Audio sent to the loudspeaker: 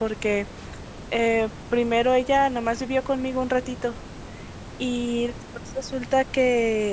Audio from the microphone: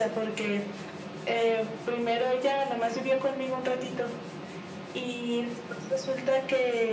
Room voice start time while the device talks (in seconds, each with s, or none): none